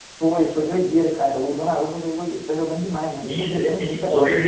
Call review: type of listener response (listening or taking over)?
taking over